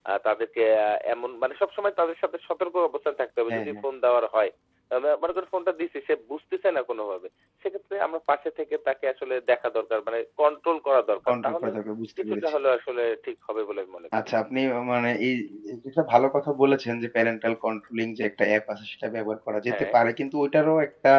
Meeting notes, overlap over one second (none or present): none